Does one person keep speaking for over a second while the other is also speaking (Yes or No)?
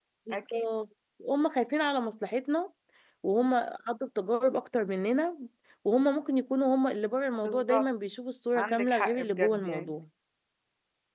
Yes